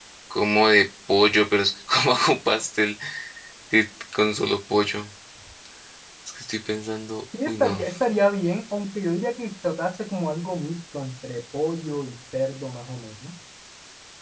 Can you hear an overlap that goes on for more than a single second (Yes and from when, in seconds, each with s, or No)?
No